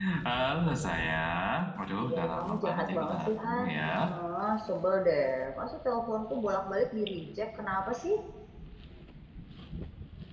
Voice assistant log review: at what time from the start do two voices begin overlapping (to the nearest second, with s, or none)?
2 s